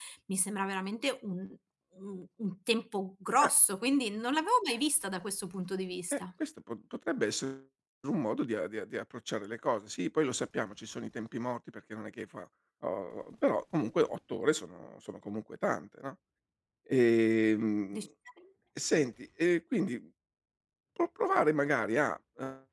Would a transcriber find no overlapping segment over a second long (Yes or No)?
Yes